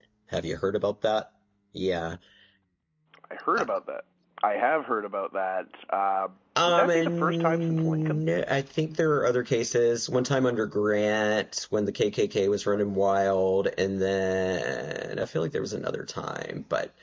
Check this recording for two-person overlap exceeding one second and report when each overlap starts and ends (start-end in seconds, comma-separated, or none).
6.7-8.2